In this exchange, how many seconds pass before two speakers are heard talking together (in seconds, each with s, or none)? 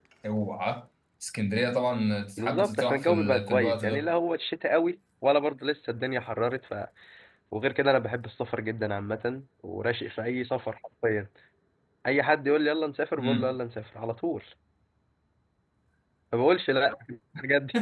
2.4 s